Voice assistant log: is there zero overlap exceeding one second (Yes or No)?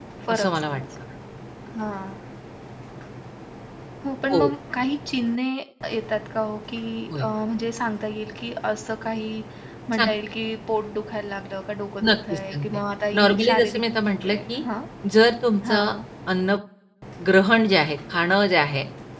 No